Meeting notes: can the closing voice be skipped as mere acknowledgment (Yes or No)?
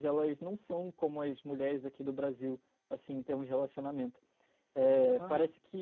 Yes